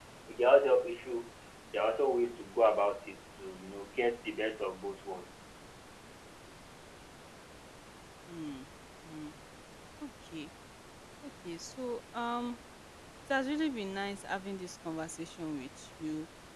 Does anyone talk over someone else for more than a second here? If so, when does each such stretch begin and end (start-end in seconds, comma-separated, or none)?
none